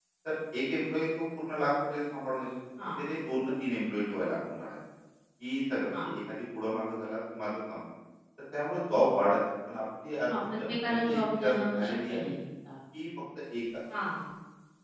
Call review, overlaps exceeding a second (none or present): present